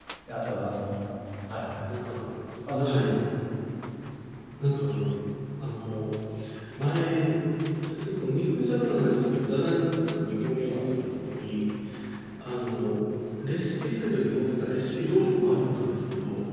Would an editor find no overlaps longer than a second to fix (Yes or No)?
Yes